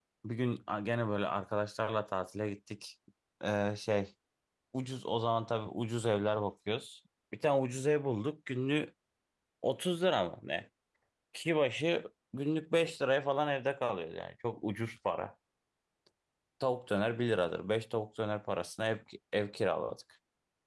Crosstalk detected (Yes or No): No